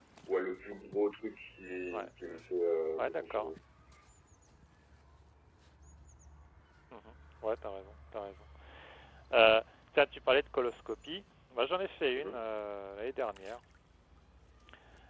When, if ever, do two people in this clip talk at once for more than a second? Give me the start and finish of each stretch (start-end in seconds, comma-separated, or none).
none